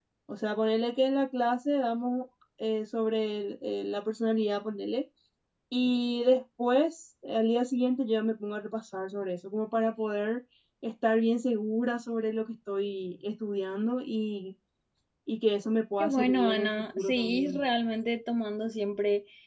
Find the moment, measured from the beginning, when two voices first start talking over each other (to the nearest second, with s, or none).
16 s